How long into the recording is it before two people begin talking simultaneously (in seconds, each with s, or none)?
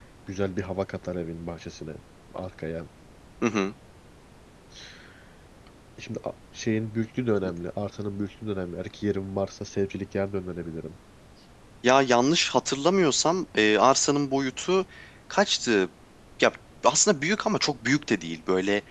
none